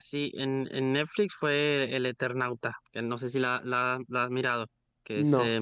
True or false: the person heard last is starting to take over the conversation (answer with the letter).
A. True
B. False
A